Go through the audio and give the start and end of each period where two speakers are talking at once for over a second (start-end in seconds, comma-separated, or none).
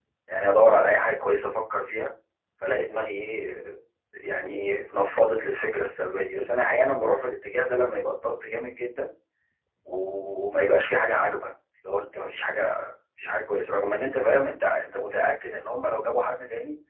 none